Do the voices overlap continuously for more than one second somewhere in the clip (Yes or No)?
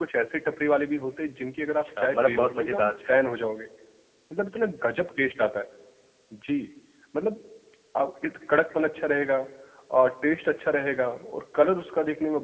Yes